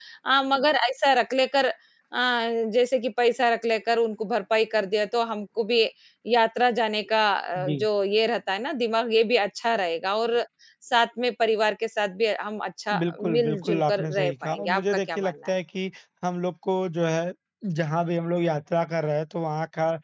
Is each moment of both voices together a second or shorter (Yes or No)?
No